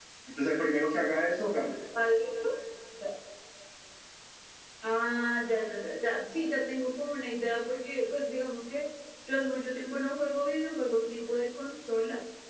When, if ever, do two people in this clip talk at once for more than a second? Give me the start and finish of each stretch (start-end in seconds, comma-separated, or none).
none